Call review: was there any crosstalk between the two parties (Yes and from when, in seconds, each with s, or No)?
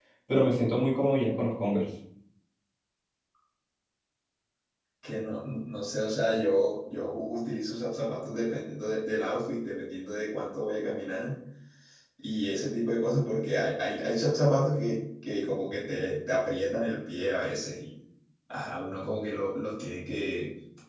No